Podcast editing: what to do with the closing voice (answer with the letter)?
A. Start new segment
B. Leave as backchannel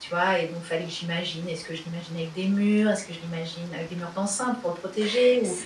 A